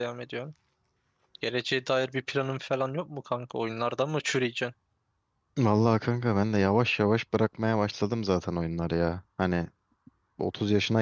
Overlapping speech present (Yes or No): No